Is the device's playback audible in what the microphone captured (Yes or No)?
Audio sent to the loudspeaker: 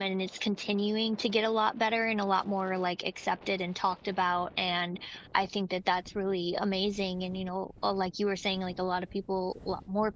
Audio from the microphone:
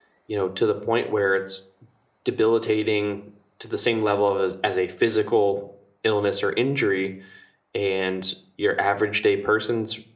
No